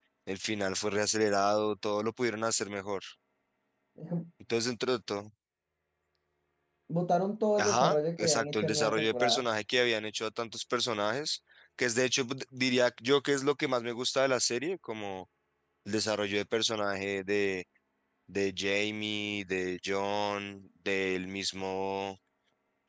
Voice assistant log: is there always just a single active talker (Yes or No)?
No